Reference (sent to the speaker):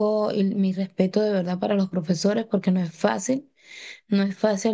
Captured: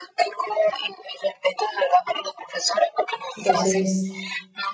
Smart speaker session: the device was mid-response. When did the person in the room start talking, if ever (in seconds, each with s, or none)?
3.4 s